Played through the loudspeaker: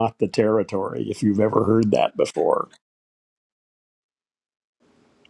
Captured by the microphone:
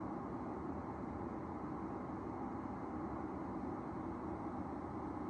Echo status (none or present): none